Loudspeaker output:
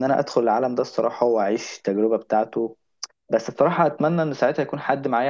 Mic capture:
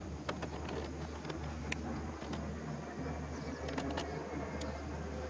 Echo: none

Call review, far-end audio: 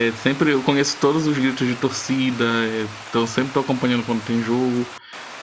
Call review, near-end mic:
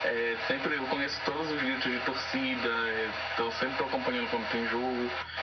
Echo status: present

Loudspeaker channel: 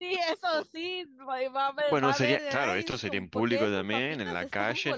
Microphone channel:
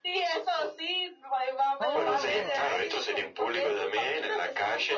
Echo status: present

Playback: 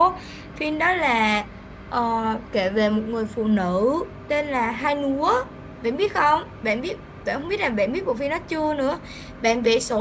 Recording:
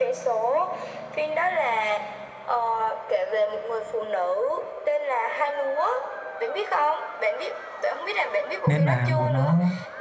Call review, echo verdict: present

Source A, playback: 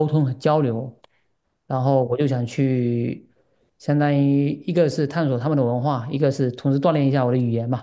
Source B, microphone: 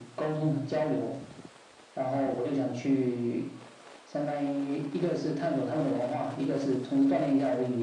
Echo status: present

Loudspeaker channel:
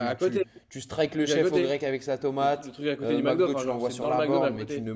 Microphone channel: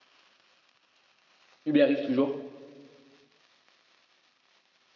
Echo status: none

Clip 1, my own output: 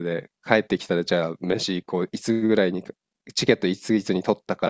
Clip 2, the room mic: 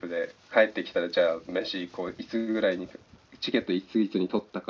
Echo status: present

